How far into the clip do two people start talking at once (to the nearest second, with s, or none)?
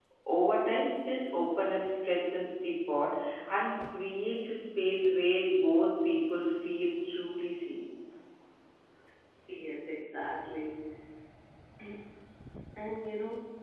none